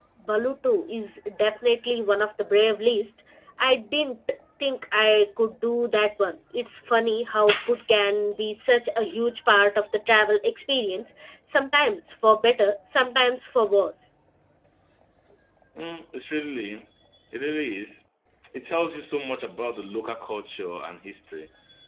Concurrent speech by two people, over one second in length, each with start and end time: none

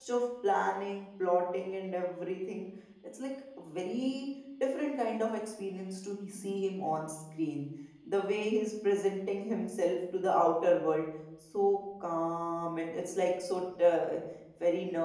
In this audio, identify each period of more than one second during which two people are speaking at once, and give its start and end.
none

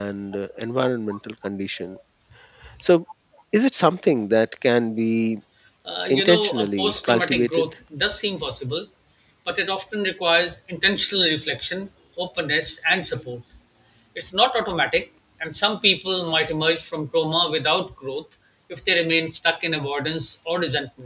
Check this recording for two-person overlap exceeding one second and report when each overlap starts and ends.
6.1-7.6

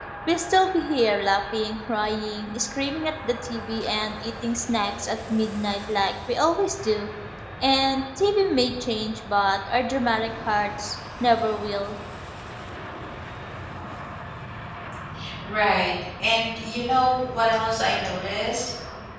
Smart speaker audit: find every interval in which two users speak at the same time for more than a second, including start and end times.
none

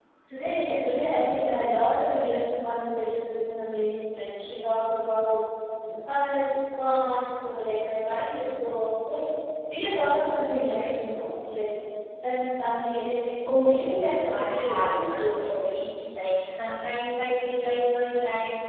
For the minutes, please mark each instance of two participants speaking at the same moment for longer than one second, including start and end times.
13.5-15.7

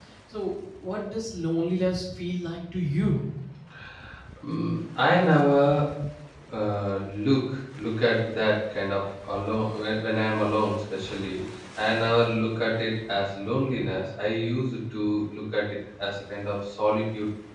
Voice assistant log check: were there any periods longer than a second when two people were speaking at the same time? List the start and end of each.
none

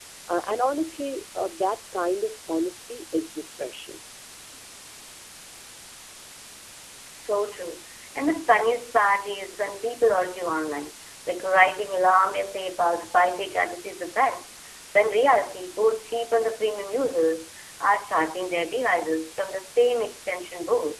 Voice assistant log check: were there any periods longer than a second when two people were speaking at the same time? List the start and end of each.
none

